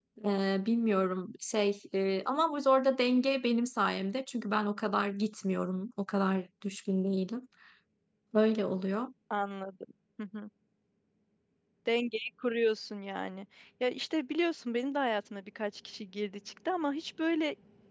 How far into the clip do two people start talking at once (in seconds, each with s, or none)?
none